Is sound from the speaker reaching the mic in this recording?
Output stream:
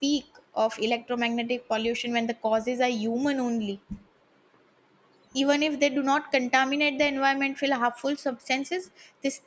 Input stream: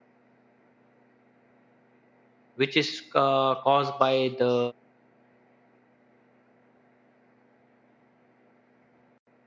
No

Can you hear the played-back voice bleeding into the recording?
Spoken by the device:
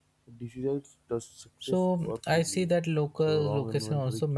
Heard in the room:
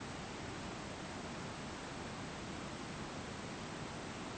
No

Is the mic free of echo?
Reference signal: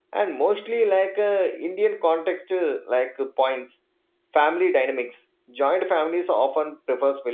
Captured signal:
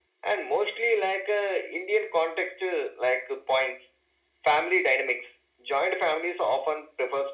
No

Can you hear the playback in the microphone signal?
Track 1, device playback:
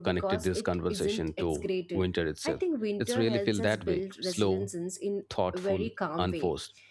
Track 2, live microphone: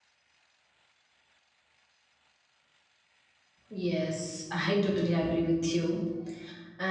No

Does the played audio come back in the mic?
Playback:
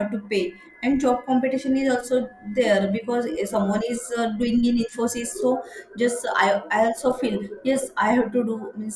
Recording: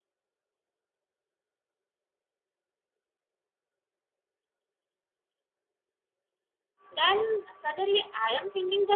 No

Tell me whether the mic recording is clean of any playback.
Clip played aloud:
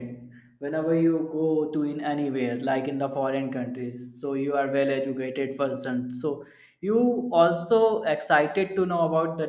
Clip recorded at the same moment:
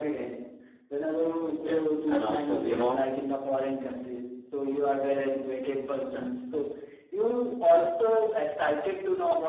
No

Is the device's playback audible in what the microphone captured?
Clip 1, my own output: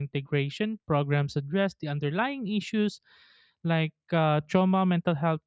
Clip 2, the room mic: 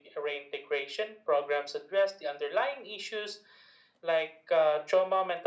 Yes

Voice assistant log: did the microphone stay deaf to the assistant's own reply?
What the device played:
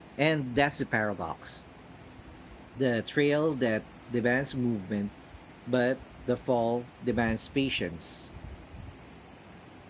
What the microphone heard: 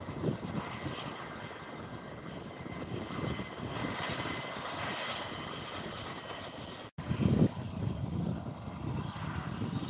Yes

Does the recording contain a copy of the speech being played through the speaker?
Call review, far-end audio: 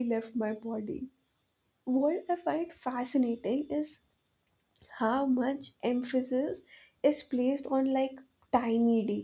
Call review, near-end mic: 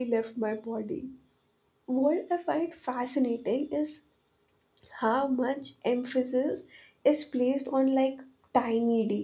Yes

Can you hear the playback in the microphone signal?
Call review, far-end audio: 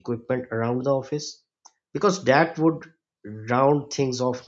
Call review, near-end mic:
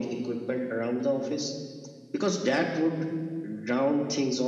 Yes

